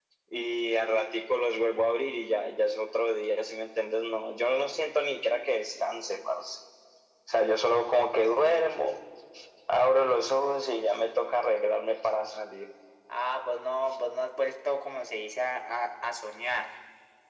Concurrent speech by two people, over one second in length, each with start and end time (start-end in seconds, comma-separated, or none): none